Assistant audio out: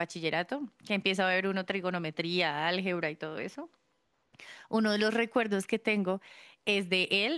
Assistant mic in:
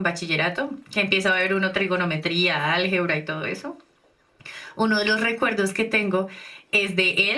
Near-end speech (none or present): none